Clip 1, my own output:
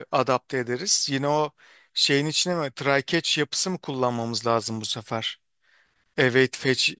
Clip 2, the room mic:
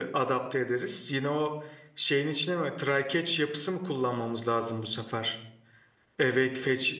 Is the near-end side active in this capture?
No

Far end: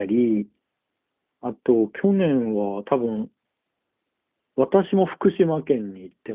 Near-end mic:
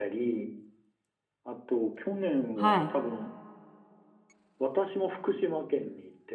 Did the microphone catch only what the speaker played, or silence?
No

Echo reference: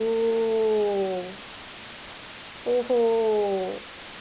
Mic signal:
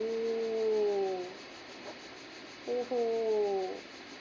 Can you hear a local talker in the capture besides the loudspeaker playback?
No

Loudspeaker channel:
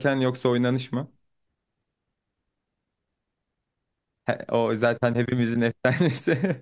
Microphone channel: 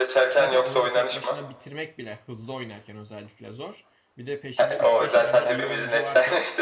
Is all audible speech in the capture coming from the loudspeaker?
No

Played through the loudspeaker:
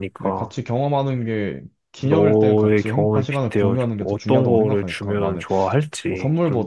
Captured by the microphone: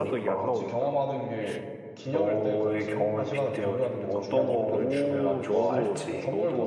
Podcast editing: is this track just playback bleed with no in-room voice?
No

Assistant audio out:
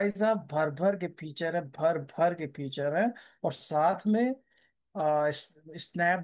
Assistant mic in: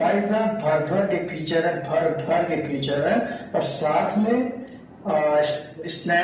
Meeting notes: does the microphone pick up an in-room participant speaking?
No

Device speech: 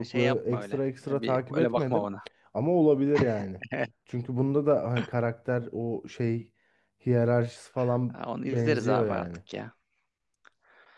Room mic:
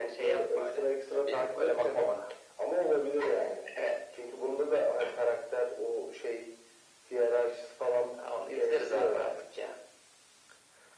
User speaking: No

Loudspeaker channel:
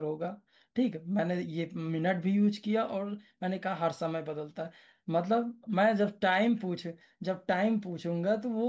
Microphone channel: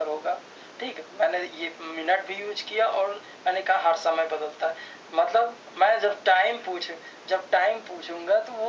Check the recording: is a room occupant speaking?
No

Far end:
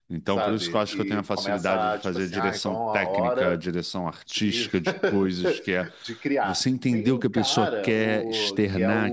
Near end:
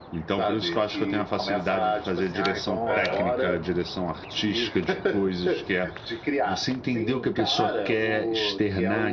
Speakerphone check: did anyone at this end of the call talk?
Yes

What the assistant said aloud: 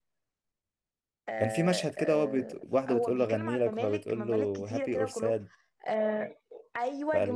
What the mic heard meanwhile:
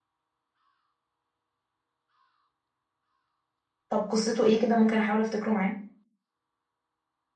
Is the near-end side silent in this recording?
No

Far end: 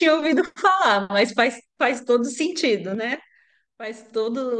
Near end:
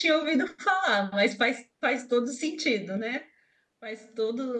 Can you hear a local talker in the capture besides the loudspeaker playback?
No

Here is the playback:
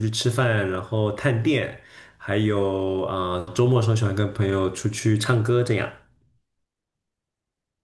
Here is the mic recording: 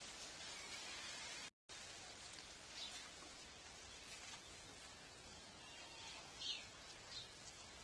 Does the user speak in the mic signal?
No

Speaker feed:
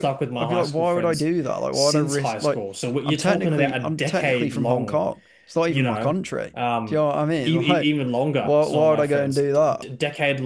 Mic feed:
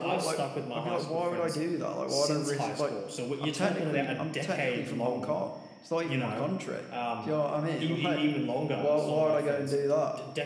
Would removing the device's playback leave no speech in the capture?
Yes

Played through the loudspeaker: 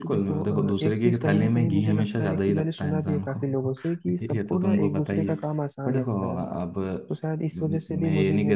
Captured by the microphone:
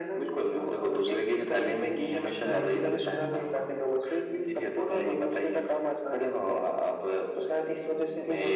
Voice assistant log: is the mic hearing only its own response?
No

